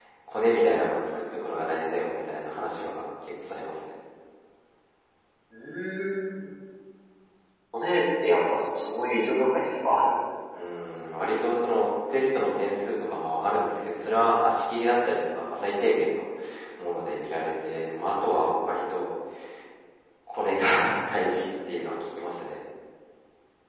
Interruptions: none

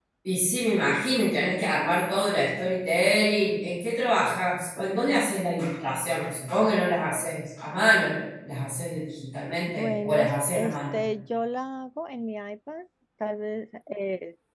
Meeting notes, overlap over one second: present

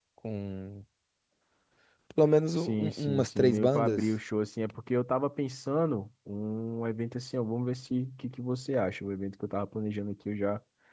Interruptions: present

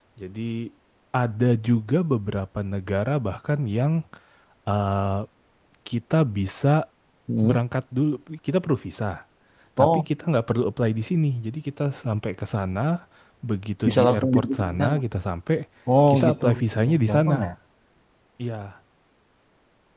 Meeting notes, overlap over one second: present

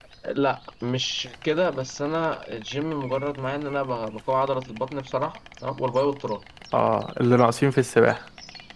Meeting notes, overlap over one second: none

